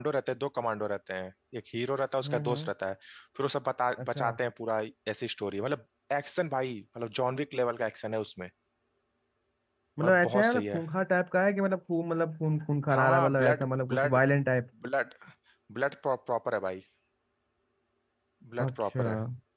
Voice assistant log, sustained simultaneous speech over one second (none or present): present